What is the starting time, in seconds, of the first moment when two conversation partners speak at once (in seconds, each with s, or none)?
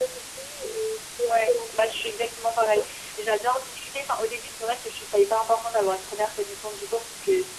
1.3 s